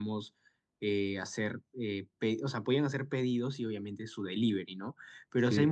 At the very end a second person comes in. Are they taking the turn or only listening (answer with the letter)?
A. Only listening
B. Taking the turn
A